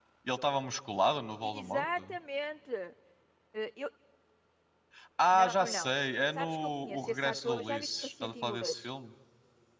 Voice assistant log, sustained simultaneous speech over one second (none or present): present